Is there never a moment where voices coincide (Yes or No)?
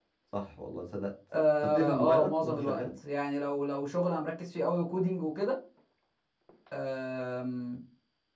No